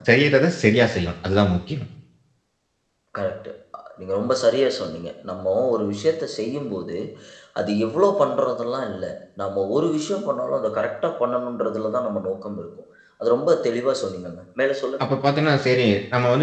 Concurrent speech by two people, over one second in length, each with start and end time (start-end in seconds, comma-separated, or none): none